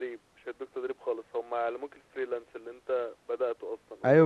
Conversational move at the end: taking over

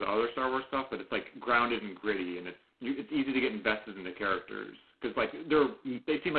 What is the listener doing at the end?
listening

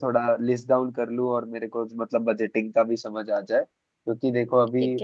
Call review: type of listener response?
listening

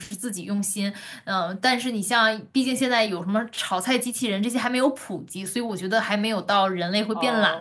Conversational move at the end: taking over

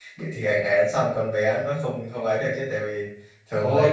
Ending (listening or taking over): taking over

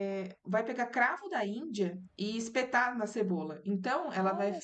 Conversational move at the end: listening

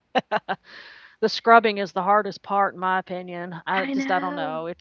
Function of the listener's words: listening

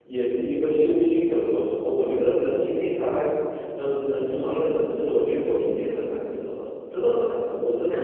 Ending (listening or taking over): taking over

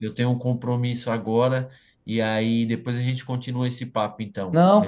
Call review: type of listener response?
taking over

